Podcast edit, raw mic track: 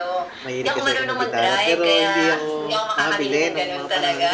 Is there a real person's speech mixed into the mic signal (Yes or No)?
Yes